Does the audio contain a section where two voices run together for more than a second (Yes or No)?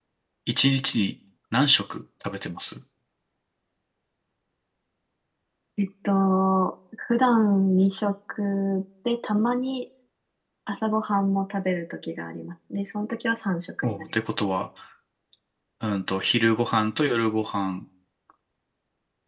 No